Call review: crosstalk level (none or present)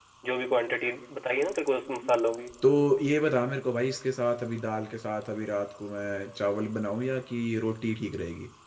none